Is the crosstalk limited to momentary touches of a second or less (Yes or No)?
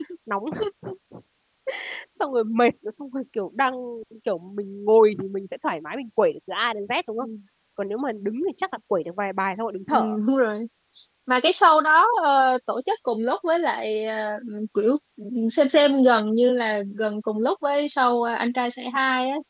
Yes